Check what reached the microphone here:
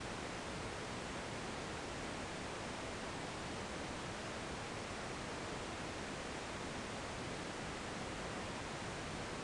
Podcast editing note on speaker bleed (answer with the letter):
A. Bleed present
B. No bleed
B